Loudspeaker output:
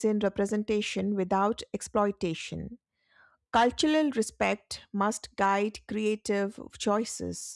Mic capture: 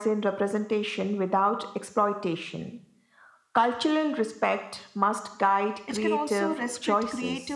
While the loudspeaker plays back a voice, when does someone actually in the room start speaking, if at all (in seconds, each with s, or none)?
5.8 s